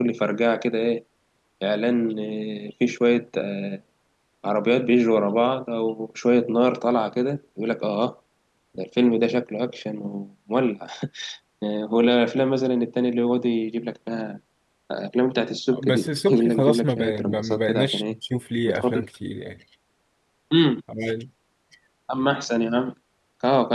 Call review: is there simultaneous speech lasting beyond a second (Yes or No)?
Yes